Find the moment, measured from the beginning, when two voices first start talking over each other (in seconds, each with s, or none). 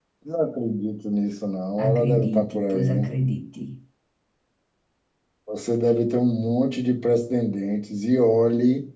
1.8 s